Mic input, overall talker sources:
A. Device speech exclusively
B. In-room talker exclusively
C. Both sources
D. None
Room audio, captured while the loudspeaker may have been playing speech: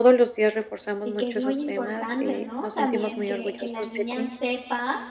C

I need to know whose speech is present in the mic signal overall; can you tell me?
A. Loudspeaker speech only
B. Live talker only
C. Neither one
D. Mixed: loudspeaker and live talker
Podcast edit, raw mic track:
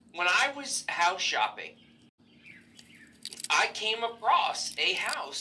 A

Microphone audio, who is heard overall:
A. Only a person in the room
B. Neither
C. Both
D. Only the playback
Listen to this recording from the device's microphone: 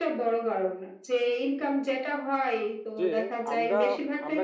C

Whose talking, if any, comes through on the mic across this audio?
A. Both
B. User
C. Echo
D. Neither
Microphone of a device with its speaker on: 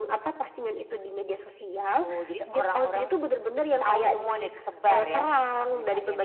C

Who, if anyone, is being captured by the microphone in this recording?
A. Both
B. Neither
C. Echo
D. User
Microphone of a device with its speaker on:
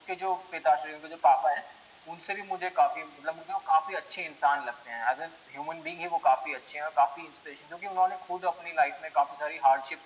C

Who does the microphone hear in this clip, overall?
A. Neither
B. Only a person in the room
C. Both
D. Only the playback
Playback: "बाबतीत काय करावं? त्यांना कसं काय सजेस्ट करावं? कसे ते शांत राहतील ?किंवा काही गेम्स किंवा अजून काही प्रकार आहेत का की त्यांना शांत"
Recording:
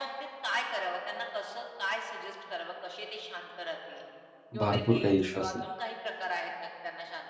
C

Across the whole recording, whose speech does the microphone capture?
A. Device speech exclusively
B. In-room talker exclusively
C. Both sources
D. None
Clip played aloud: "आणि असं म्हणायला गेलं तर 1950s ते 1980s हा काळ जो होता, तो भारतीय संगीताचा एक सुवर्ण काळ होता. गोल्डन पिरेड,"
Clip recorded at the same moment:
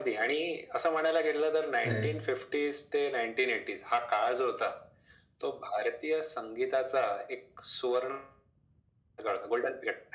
C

